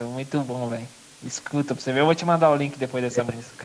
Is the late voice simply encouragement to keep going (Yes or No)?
No